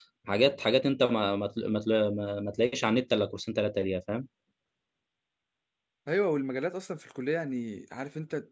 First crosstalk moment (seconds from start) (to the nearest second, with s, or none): none